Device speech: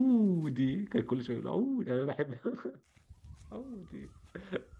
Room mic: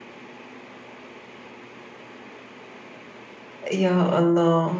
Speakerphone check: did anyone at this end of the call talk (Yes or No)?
Yes